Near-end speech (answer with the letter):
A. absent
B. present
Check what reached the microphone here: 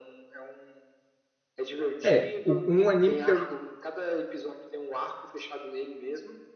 B